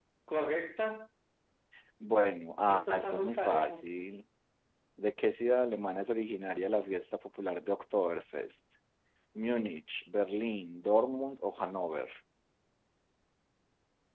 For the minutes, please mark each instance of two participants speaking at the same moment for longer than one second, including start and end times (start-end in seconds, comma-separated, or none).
2.7-3.9